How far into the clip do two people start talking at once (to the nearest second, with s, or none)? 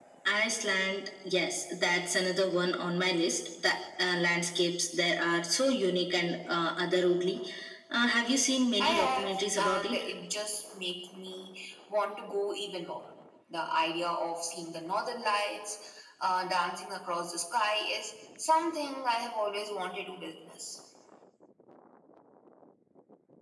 9 s